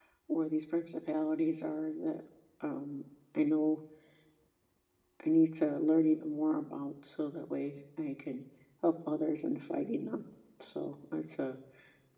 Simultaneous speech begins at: none

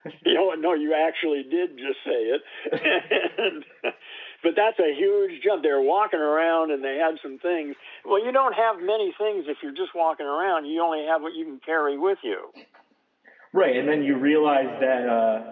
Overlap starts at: none

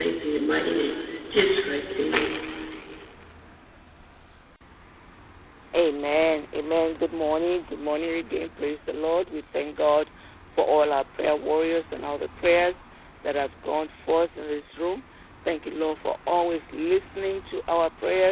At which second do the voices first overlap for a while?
none

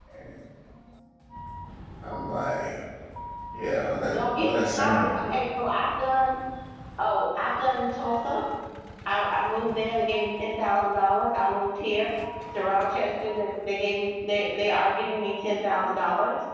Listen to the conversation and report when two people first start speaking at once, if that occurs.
4 s

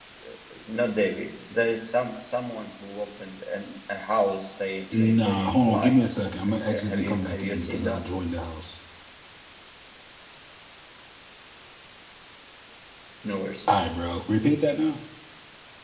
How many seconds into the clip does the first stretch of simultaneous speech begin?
5 s

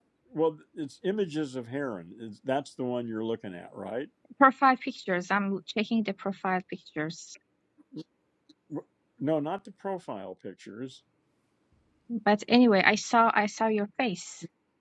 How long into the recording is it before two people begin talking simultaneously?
none

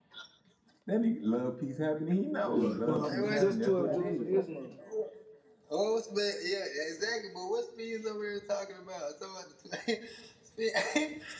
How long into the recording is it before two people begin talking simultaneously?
2 s

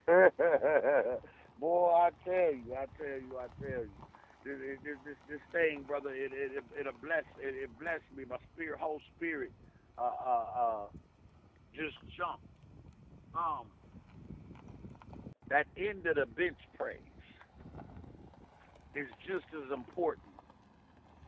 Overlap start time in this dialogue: none

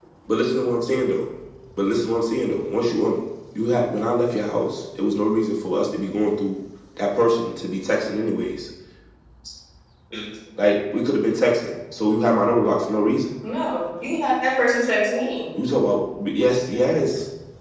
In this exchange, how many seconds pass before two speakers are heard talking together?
none

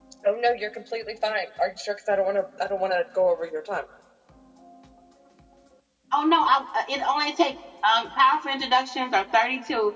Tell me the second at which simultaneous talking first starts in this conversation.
none

